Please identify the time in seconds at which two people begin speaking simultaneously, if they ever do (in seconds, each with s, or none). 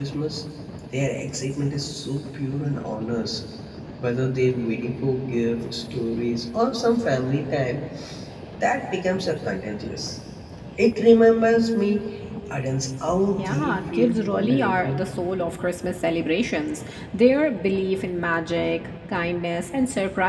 13.3 s